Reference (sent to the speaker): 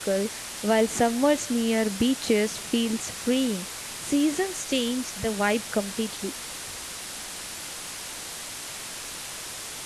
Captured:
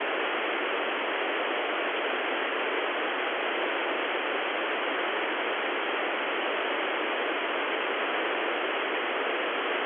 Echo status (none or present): none